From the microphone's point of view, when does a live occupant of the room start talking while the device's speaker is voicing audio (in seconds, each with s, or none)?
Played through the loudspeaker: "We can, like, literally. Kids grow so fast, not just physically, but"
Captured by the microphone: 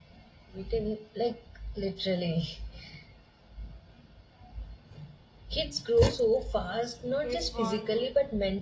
7.2 s